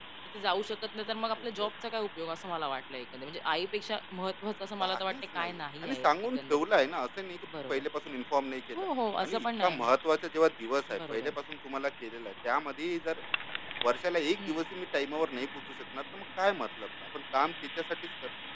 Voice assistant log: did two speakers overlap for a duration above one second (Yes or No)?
Yes